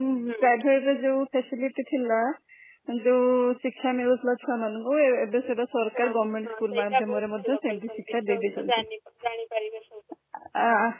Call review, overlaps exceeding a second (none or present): present